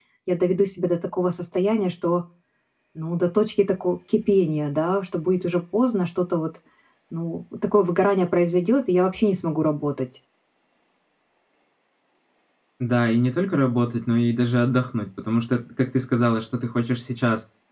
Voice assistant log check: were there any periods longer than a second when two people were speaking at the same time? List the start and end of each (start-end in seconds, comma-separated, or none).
none